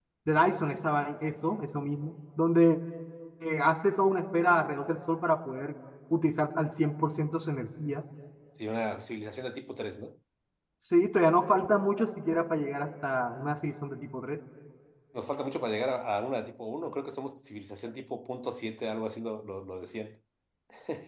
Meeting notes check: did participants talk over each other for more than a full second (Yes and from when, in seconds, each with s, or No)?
No